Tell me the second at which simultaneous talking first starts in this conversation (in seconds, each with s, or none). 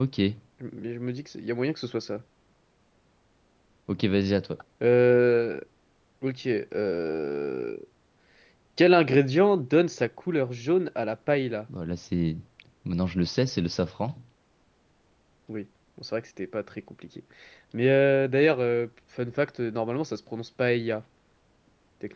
none